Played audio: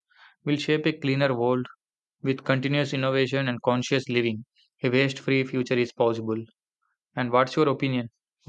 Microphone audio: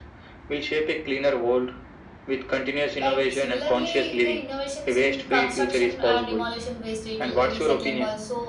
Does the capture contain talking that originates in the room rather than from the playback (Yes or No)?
Yes